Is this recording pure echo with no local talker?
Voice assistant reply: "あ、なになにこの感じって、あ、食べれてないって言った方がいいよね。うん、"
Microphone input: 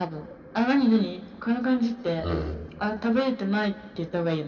No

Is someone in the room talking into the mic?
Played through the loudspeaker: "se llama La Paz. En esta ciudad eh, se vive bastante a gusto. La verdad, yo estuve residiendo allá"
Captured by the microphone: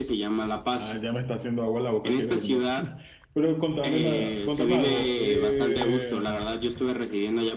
Yes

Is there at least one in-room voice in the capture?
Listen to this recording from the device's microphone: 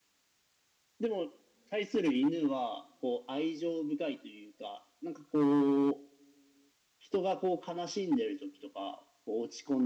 No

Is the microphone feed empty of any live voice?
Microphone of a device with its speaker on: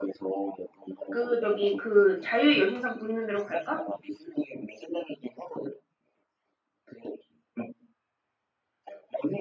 No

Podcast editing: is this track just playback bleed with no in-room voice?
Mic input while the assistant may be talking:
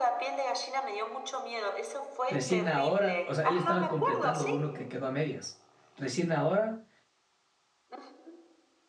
No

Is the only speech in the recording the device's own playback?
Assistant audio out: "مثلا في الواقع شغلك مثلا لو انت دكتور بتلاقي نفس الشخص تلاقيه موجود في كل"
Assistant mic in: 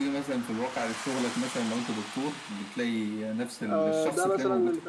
No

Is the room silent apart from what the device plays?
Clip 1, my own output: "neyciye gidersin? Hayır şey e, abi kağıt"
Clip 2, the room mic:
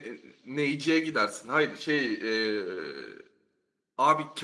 Yes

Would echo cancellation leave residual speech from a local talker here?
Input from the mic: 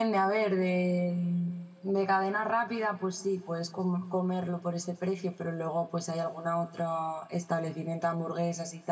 Yes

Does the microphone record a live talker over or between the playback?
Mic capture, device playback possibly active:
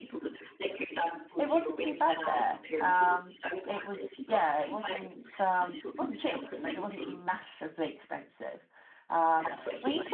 Yes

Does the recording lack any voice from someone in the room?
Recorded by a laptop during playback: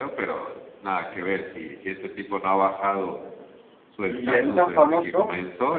No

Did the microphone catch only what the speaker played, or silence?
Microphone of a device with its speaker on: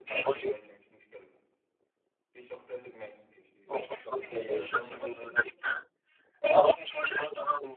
No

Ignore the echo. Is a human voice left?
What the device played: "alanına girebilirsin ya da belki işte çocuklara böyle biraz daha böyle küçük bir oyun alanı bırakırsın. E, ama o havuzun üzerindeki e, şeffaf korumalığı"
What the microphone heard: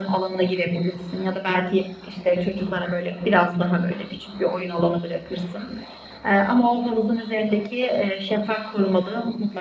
No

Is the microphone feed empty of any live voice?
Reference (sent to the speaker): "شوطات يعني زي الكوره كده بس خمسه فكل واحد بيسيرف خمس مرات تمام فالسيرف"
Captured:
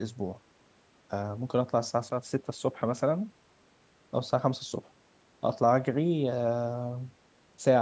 No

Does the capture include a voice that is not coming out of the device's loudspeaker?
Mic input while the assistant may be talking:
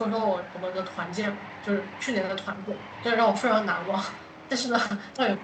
Yes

